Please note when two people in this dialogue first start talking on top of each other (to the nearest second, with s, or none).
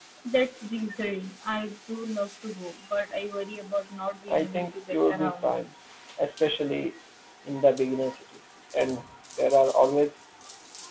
4 s